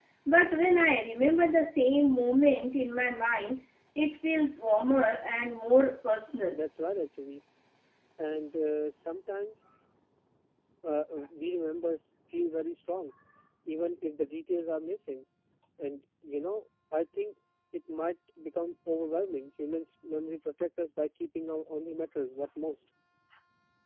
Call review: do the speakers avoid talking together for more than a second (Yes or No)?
Yes